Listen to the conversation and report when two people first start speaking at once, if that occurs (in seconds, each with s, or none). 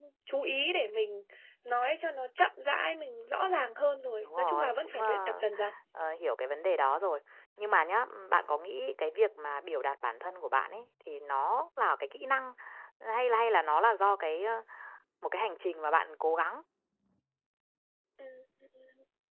4.2 s